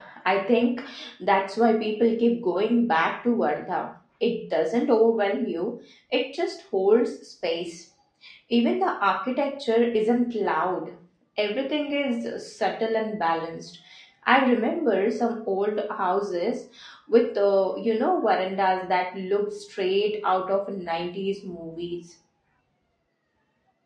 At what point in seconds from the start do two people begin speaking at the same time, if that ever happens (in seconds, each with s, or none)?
none